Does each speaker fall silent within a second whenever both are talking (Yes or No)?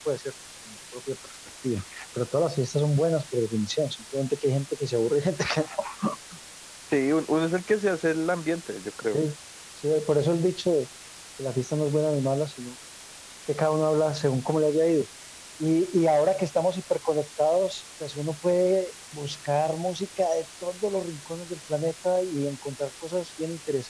Yes